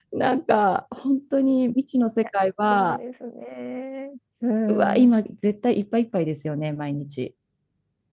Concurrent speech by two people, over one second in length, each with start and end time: none

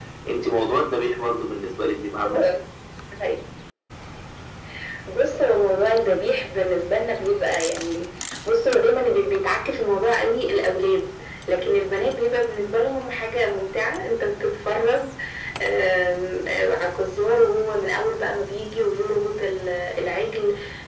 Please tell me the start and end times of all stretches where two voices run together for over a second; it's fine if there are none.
none

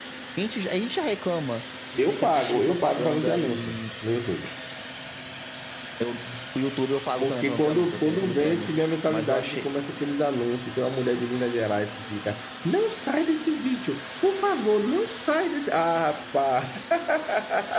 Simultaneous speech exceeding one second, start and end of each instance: 2.0-3.9, 7.2-9.7

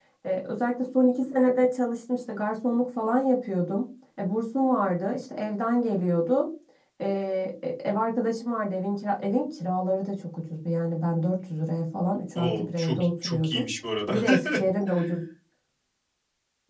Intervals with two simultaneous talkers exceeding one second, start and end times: 12.4-13.7

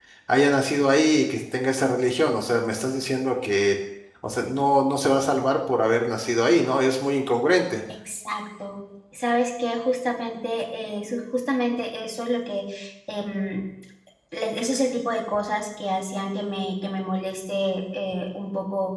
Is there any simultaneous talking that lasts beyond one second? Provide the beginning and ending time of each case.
none

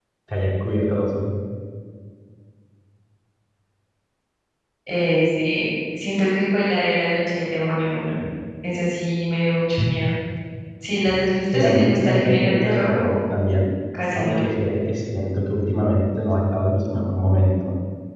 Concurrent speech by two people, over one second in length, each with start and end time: 11.5-13.3

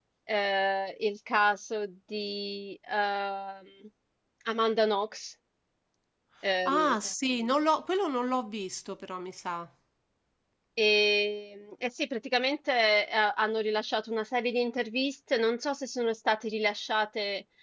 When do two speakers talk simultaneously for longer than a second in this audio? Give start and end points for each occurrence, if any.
none

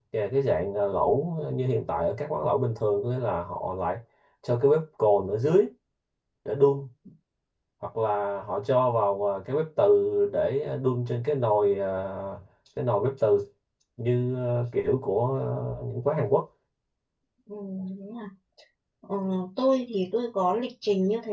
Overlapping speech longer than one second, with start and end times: none

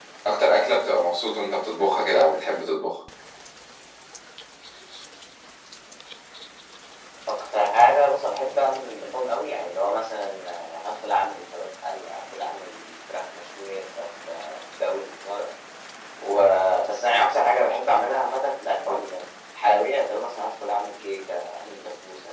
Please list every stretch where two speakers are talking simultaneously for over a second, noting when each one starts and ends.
none

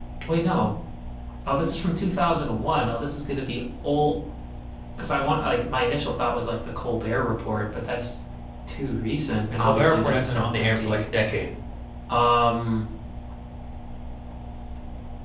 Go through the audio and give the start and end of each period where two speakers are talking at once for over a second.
9.5-11.0

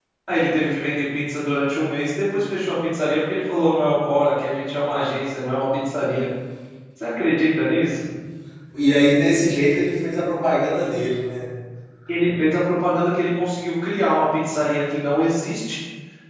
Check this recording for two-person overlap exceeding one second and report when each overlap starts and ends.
none

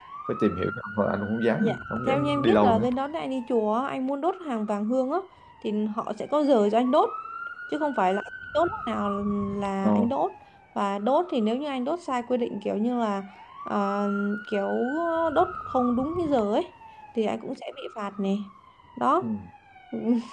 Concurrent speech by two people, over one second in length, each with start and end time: 1.6-2.9

